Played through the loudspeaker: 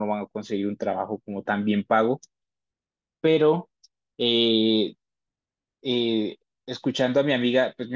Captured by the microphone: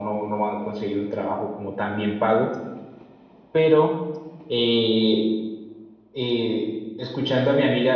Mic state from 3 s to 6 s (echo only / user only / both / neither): echo only